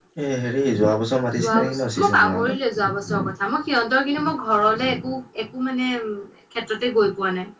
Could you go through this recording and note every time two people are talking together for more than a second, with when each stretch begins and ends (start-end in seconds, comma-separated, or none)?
1.3-2.5